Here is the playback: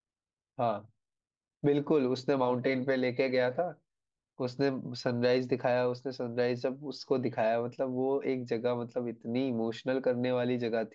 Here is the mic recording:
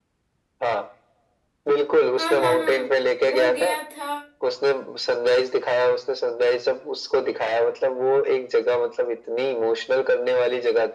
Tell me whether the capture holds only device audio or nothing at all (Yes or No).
No